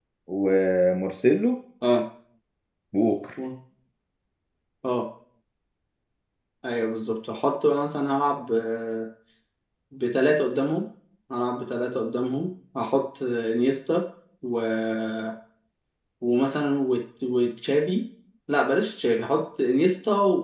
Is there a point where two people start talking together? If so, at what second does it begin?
none

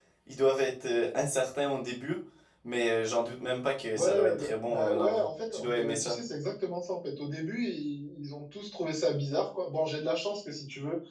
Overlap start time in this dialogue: 3.9 s

